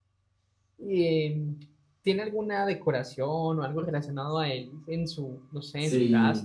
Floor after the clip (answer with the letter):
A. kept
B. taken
B